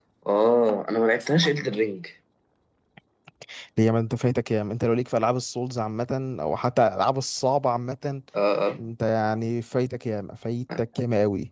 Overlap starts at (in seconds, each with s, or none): none